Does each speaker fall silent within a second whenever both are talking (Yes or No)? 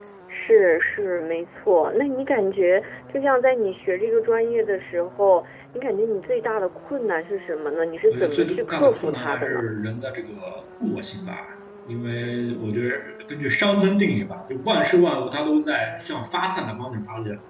No